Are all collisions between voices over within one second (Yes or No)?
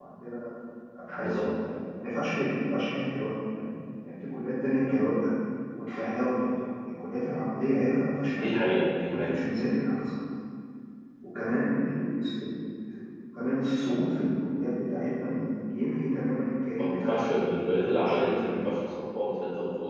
No